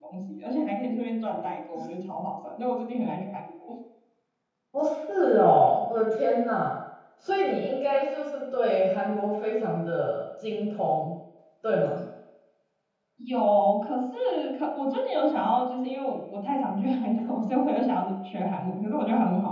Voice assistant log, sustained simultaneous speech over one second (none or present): none